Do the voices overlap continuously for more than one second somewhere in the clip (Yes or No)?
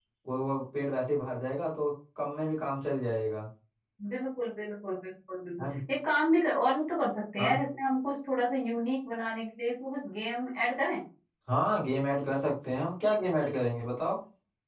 No